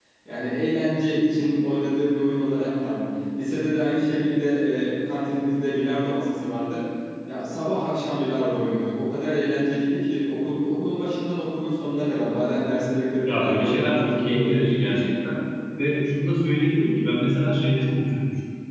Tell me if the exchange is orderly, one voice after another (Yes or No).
No